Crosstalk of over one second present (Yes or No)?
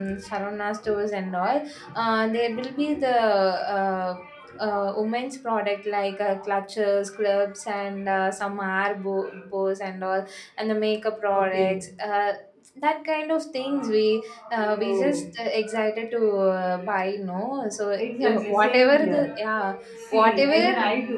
Yes